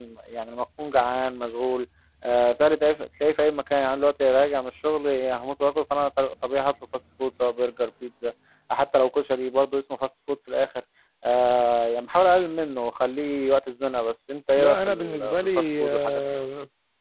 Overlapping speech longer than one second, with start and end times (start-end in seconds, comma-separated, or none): 14.6-16.2